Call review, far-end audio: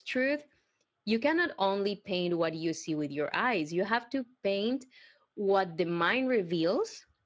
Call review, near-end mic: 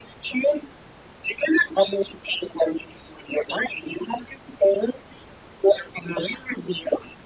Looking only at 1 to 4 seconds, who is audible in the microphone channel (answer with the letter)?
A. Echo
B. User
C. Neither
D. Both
A